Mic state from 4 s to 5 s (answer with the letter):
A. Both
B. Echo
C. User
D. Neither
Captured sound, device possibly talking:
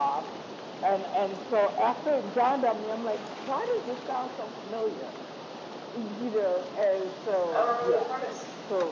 B